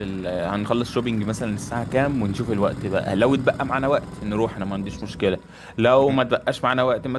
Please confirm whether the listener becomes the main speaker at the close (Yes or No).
No